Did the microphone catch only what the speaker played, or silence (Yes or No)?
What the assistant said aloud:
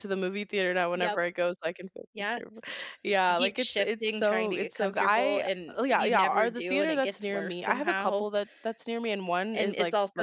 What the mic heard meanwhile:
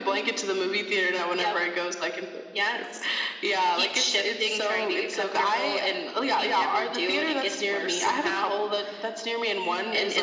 Yes